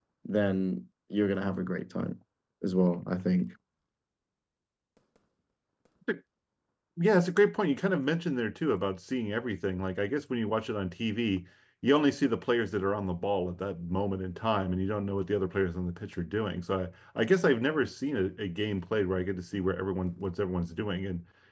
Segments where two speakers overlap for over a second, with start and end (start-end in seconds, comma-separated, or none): none